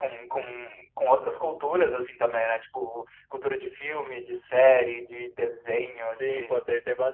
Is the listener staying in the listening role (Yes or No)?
No